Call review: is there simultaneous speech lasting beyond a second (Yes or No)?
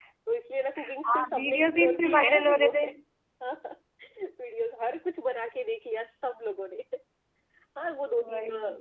Yes